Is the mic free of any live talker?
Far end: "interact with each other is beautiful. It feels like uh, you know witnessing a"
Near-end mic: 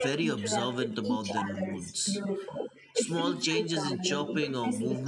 No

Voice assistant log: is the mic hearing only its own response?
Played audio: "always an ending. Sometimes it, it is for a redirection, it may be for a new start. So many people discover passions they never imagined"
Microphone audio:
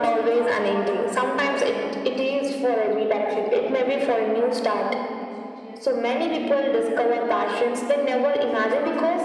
No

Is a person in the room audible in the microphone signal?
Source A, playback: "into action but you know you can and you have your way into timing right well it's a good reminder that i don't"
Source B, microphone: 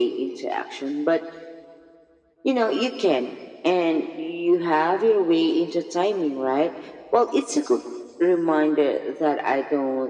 No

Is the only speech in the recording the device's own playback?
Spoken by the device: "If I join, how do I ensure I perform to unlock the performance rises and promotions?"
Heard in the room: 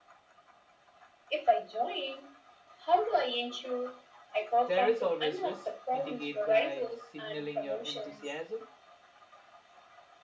No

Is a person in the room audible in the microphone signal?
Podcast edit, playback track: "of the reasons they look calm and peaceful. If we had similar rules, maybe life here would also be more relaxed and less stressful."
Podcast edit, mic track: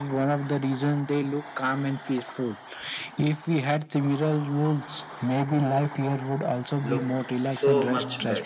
Yes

